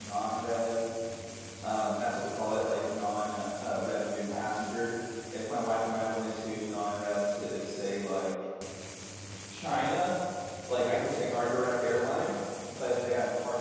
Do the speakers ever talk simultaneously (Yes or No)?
No